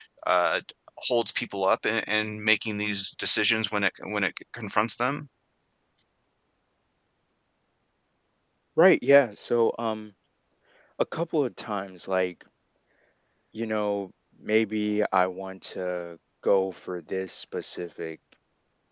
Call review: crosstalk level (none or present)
none